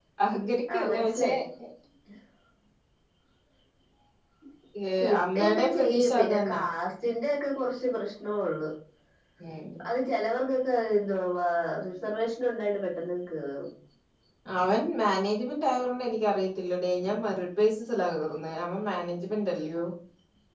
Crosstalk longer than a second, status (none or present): present